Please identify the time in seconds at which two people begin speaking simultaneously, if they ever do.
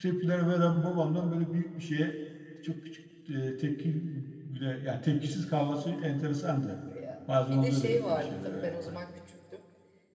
8 s

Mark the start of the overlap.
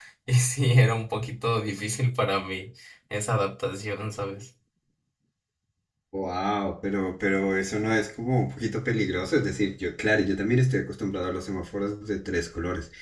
none

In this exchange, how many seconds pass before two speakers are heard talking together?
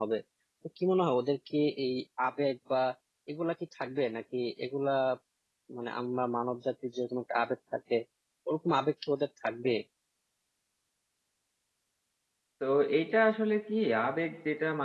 none

